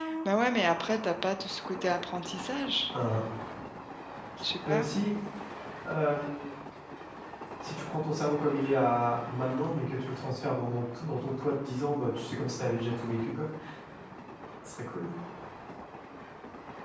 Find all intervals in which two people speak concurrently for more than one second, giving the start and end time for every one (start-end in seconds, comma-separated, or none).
none